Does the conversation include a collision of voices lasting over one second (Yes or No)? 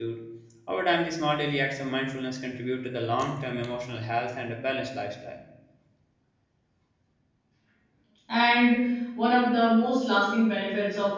No